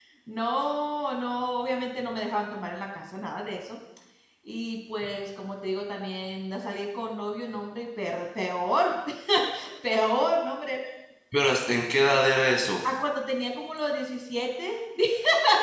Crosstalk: none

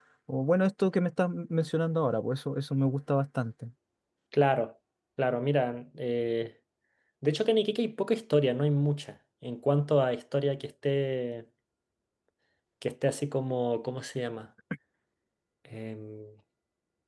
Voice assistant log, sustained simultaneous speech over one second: none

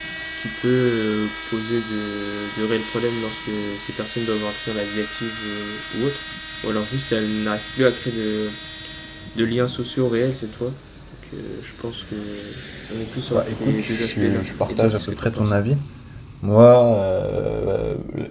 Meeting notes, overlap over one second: present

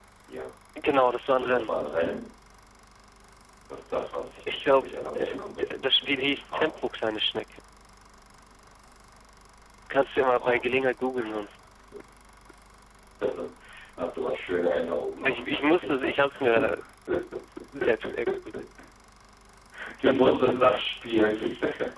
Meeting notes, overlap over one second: present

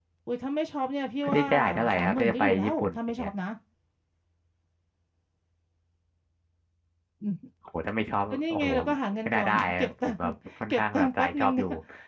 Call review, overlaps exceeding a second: present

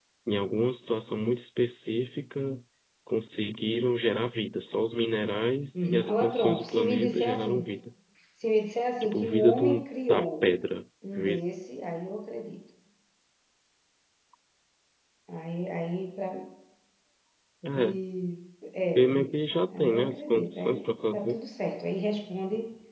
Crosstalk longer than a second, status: present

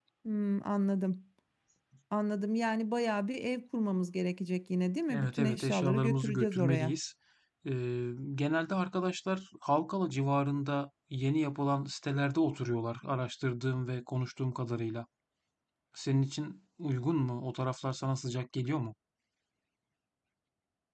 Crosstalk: present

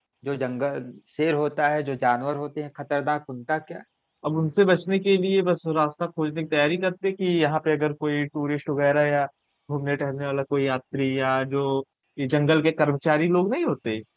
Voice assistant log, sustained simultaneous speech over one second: none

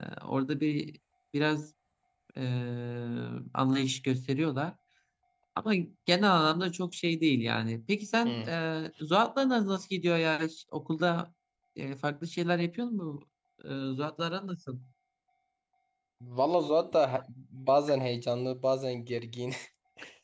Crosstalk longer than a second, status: none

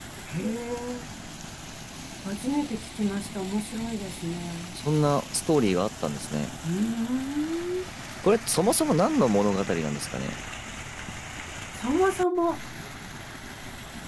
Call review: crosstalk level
none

